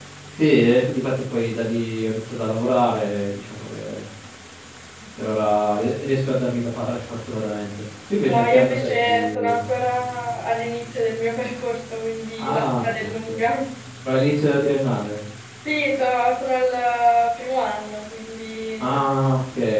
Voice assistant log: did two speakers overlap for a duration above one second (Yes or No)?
Yes